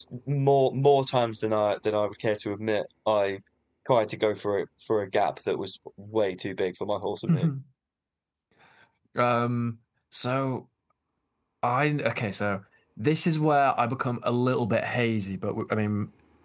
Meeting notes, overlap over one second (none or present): none